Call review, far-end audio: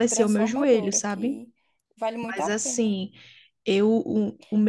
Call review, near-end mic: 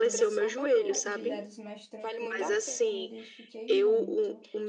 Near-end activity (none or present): present